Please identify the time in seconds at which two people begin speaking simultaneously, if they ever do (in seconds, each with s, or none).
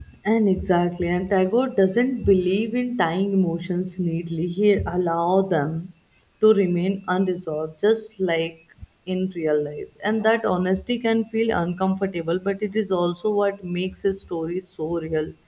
none